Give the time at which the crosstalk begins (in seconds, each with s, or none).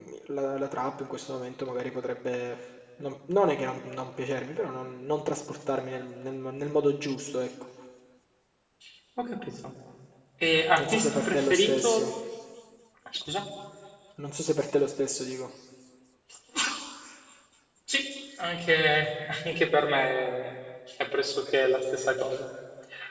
10.8 s